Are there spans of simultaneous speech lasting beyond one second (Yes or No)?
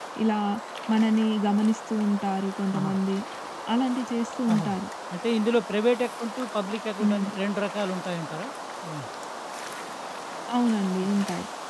No